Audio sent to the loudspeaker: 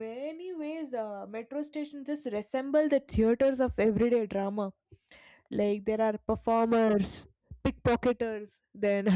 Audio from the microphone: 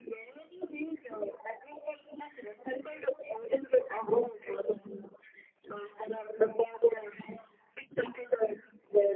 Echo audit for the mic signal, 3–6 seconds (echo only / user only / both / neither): echo only